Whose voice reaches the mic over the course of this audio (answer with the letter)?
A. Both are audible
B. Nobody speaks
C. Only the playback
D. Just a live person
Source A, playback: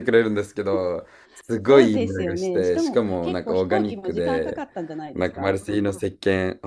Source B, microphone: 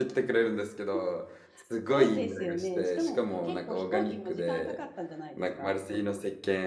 C